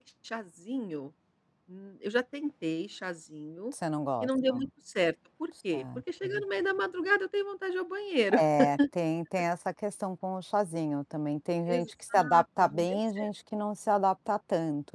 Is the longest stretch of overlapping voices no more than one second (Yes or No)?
No